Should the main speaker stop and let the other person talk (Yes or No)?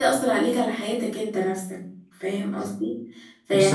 No